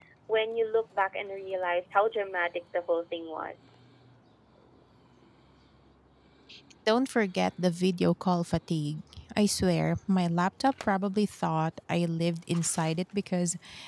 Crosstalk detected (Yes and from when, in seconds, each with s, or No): No